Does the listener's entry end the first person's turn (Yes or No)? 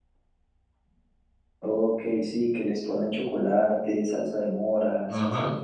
Yes